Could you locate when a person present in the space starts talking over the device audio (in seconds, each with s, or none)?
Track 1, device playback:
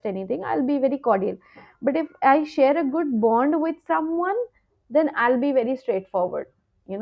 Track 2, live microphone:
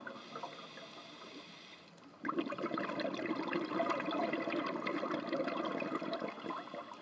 none